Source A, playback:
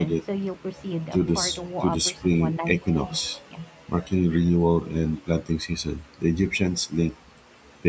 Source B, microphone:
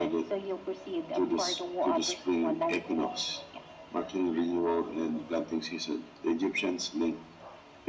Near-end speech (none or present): none